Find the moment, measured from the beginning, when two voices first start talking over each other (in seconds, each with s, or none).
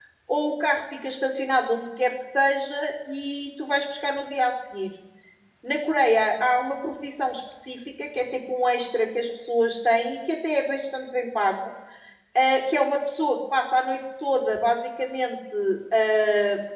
none